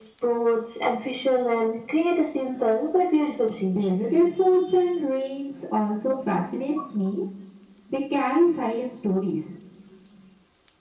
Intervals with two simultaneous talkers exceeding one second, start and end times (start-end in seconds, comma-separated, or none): none